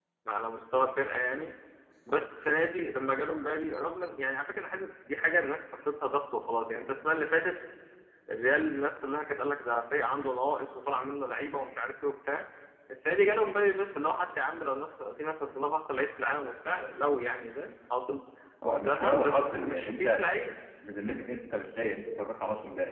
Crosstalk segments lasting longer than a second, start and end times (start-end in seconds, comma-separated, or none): 18.6-20.2